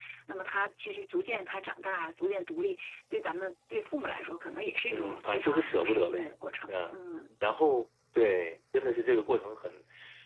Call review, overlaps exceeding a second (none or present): present